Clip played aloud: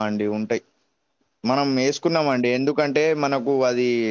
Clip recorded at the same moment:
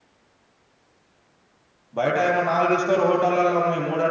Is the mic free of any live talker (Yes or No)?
No